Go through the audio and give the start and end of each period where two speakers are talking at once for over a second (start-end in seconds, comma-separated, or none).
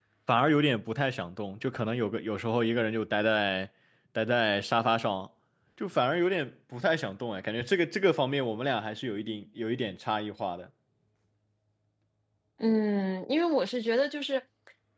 none